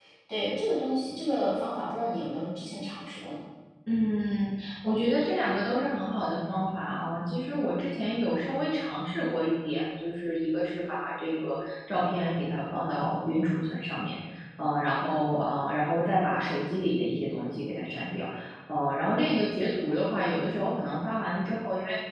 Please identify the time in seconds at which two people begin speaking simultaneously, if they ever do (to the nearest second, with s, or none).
none